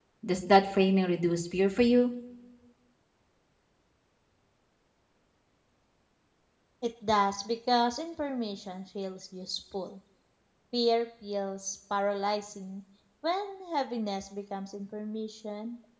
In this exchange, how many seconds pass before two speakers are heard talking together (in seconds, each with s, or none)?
none